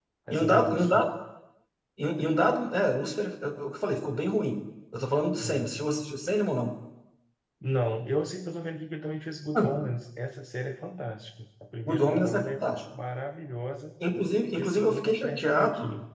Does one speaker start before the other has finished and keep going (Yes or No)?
Yes